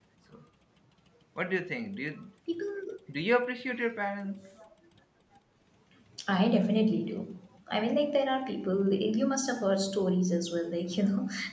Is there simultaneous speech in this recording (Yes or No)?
No